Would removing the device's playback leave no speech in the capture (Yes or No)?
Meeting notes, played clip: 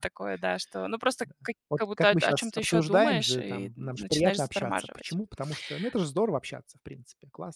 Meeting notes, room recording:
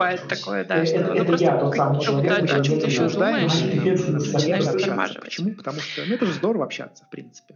No